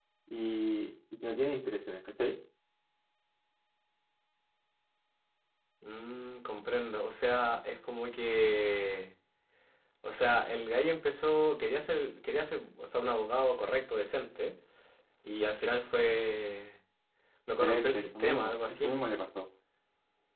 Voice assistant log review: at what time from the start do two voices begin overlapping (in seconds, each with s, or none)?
17.6 s